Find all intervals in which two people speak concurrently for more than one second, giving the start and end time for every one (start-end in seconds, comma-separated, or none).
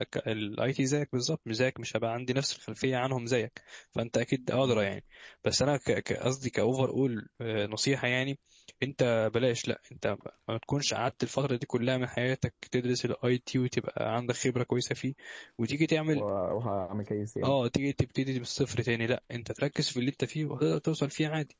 none